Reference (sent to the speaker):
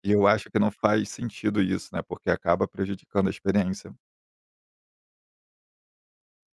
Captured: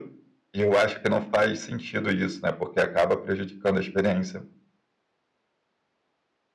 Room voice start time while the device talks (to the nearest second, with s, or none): none